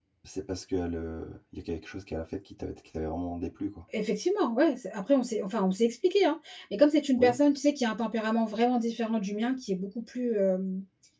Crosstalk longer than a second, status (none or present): none